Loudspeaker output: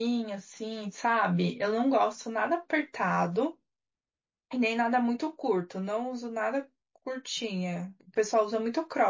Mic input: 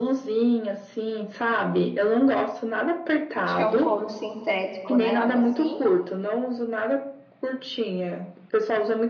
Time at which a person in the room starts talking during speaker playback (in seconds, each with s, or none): 3.3 s